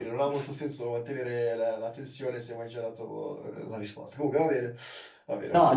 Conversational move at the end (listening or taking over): taking over